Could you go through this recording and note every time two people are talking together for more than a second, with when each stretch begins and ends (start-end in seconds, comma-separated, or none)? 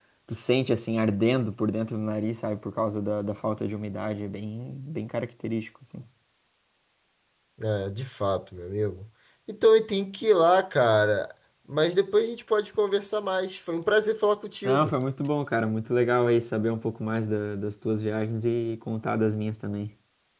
none